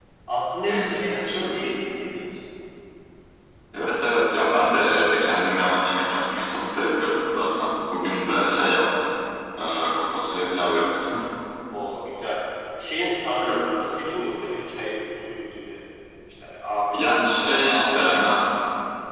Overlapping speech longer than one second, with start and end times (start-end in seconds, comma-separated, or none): 16.9-18.3